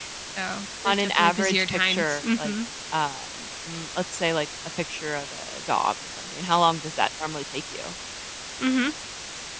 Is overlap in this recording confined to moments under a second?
No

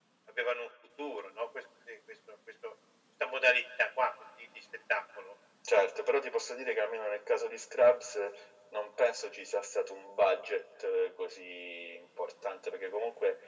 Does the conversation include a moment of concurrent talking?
No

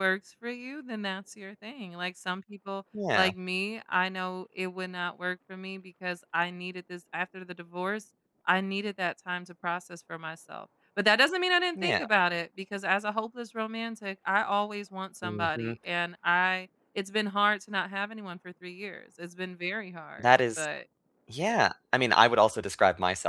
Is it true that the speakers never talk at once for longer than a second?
Yes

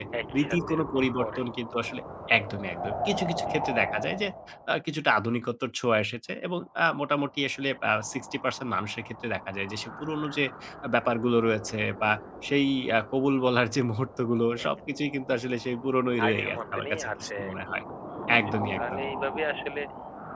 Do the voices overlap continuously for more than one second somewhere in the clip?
Yes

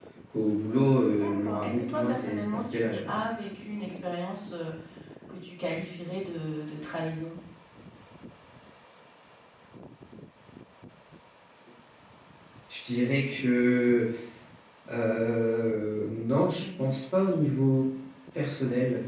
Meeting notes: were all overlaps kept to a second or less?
No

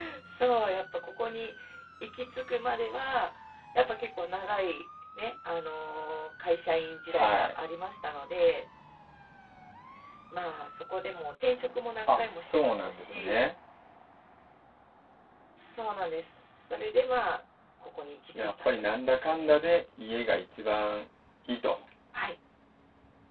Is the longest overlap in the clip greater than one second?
Yes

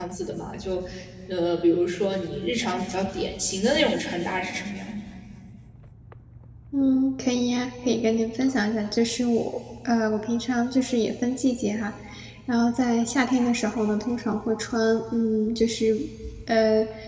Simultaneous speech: No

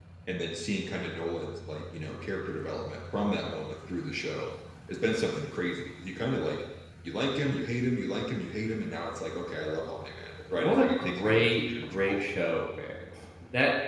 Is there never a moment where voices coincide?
No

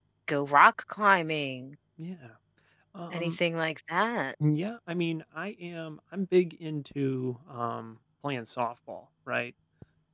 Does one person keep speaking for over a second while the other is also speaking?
No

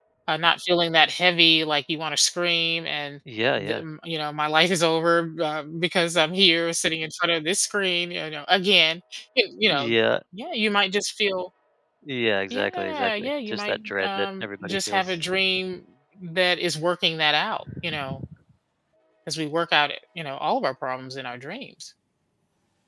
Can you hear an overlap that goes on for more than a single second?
Yes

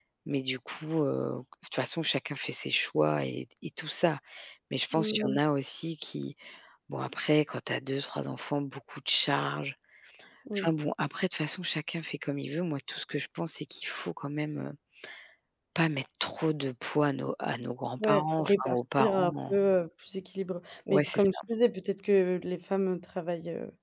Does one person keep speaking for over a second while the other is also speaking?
Yes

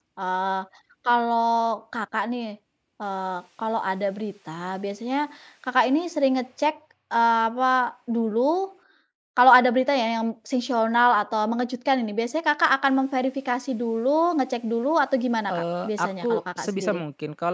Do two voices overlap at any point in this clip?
Yes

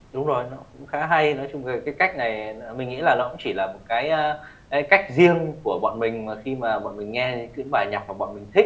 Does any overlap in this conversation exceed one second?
No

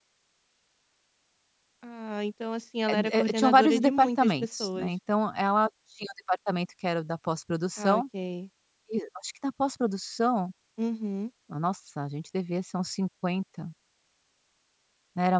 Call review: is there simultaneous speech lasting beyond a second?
Yes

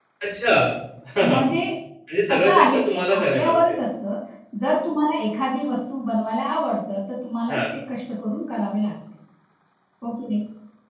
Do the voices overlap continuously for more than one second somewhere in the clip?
Yes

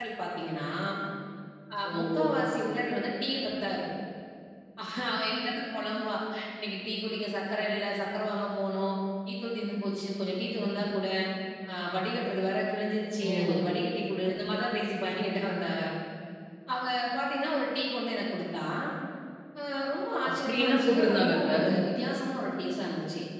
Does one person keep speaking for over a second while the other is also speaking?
Yes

